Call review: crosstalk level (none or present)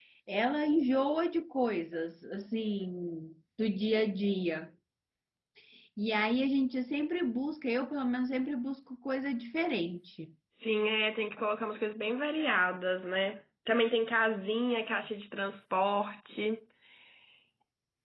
none